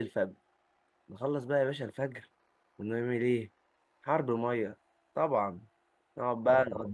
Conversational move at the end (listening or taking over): listening